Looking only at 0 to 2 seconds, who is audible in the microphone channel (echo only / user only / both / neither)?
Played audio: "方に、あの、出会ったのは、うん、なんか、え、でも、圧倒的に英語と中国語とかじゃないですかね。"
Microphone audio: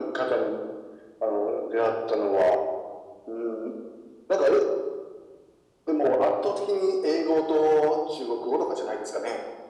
echo only